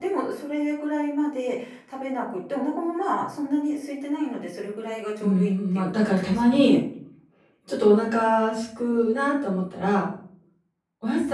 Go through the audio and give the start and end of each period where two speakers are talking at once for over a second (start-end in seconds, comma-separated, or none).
5.2-6.8